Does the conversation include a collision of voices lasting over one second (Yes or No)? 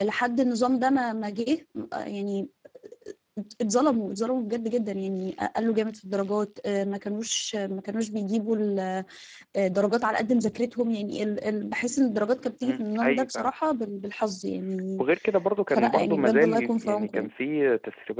Yes